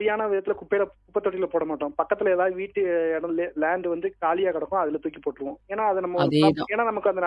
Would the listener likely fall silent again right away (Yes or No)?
Yes